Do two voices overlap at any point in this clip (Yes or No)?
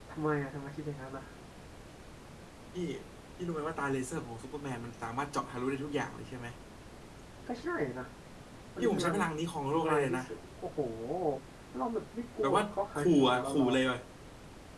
Yes